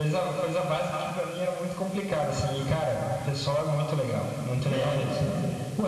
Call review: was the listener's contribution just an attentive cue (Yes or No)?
No